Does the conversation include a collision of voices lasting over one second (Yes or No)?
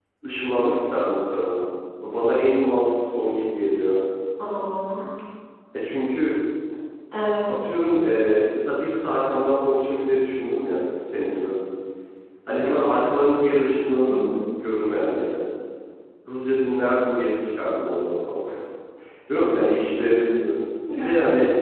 No